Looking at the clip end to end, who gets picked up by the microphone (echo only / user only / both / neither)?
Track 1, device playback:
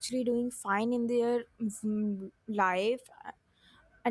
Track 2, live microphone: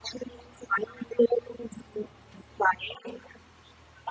echo only